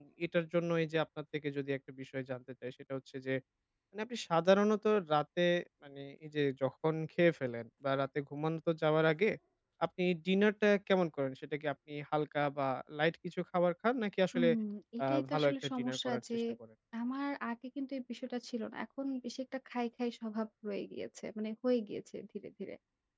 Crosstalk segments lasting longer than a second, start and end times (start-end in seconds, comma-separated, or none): 15.1-16.4